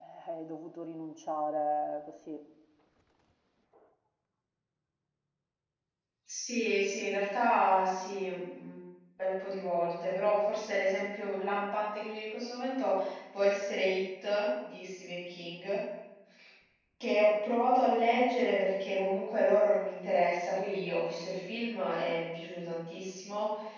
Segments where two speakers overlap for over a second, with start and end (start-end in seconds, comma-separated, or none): none